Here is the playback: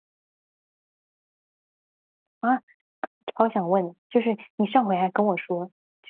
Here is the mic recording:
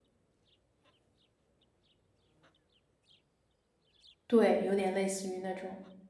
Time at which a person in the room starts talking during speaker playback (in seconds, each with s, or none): 4.3 s